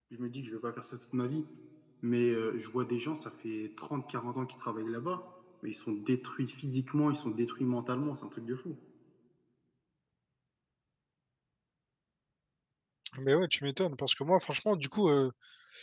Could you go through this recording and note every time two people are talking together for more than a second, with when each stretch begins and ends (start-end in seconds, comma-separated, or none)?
none